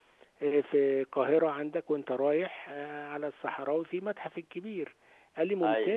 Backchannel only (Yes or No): Yes